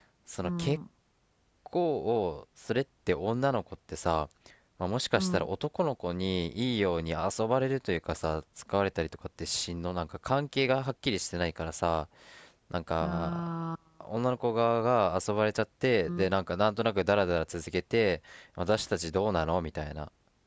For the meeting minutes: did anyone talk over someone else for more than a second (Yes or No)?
No